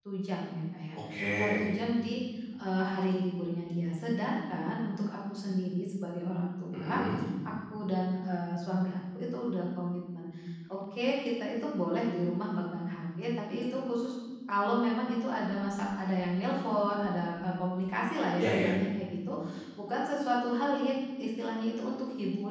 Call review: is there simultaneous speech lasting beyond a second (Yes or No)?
No